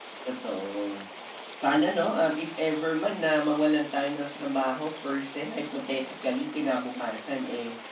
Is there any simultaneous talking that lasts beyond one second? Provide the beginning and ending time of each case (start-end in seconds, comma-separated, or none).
none